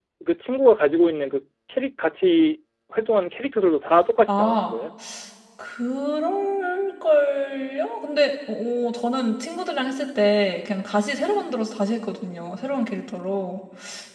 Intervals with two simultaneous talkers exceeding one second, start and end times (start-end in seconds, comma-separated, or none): none